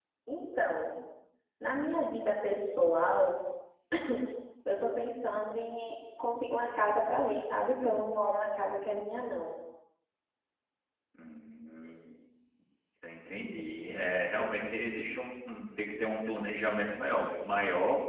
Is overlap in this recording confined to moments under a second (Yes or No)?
Yes